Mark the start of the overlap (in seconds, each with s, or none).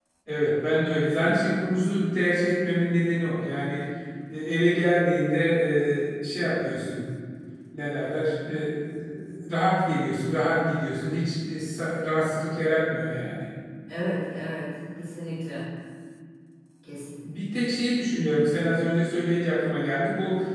none